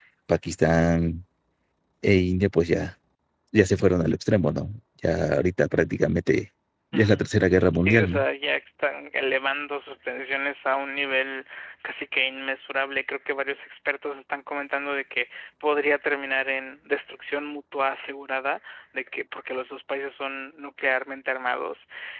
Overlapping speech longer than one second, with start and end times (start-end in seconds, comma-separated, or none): 6.9-8.2